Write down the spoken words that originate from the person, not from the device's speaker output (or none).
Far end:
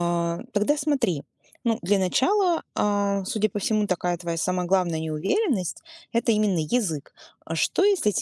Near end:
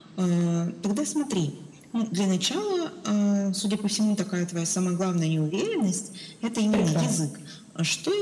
Прекрасно.